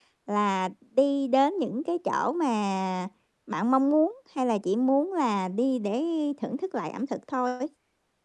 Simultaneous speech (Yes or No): No